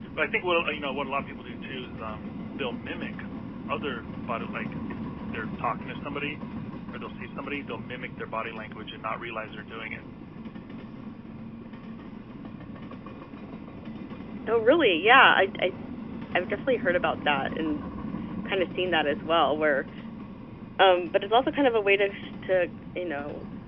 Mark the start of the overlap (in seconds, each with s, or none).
none